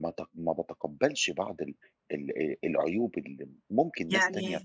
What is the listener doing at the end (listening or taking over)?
listening